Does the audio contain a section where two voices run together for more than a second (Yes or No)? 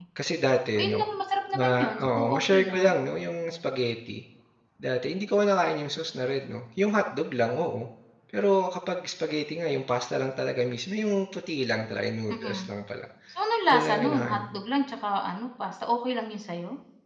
Yes